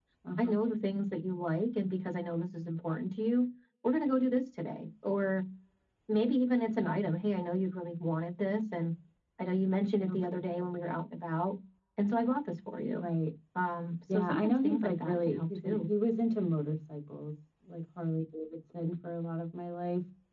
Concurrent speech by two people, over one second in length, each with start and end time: 14.1-15.8

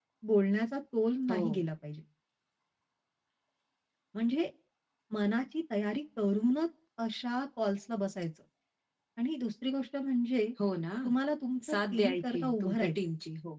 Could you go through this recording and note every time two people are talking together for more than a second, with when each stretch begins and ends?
11.7-13.0

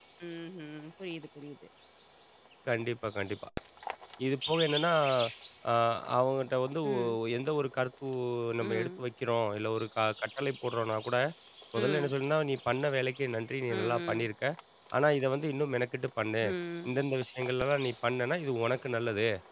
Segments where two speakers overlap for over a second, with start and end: none

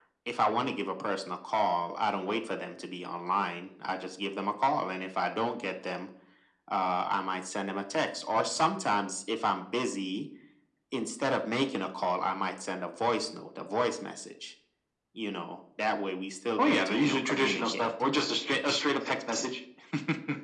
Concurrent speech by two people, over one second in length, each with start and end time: 16.6-17.9

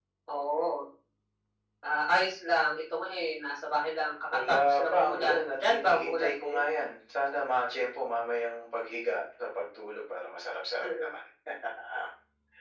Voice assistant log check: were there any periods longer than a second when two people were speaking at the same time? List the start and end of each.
4.5-6.6

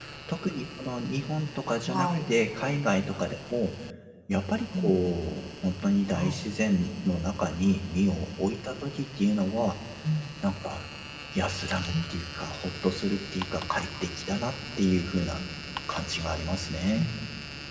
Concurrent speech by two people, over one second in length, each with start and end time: none

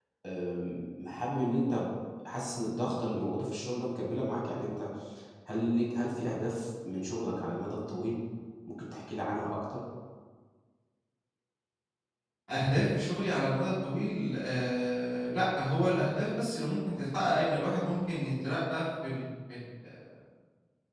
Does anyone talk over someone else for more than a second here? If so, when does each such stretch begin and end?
none

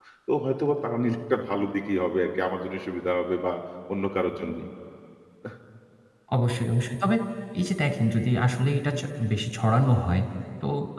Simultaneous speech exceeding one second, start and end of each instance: none

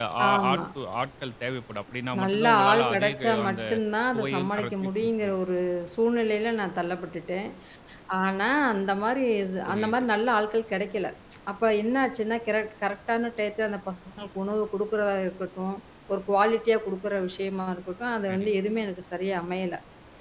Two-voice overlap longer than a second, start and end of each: 2.2-3.6, 4.1-5.4

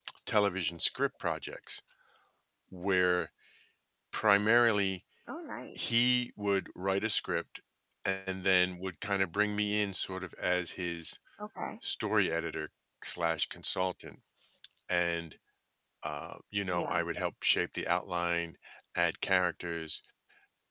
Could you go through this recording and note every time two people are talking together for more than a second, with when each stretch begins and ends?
none

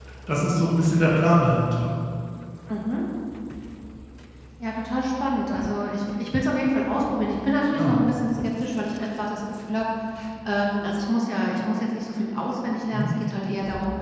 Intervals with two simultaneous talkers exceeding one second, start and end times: none

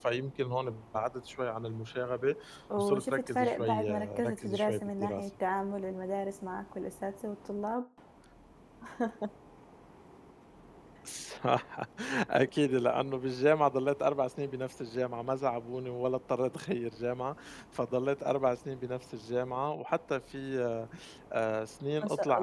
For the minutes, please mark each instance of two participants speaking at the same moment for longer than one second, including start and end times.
2.8-5.2

